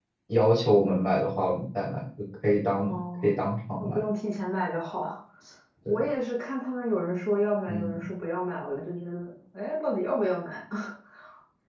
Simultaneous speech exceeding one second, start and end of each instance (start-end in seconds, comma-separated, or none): none